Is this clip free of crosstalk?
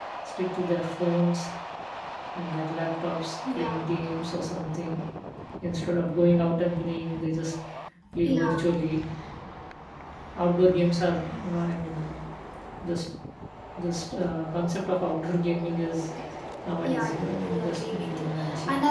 No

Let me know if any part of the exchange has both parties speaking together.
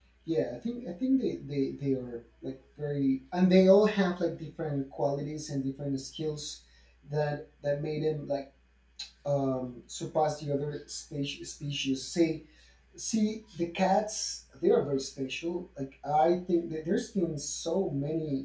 No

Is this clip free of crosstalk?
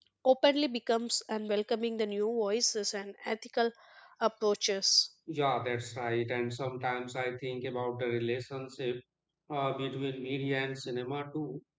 Yes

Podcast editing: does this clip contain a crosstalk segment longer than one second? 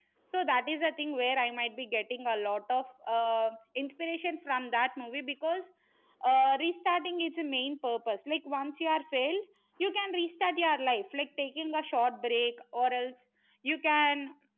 No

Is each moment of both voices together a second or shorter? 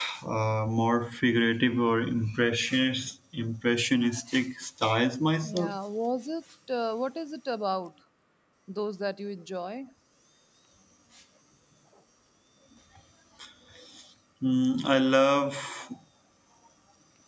Yes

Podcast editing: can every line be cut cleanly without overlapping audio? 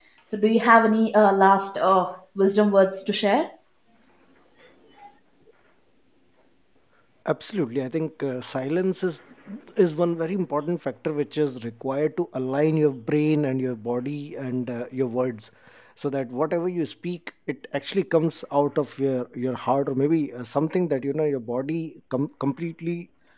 Yes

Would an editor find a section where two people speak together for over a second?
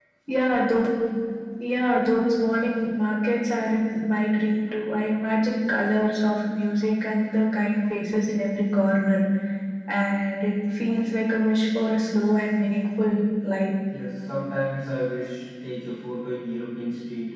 No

